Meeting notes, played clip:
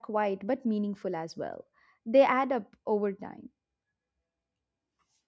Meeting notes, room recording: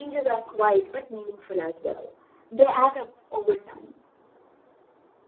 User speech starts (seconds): none

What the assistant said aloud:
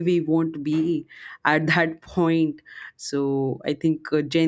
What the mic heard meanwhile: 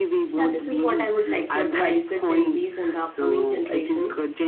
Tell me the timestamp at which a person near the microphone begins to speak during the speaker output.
0.3 s

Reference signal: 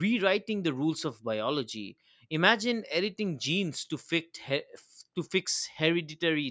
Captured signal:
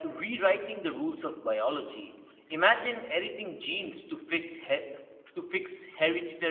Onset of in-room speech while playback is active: none

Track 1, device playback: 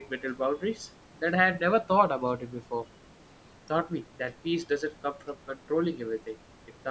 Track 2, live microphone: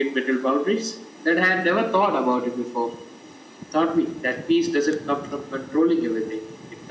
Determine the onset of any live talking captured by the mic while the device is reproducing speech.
none

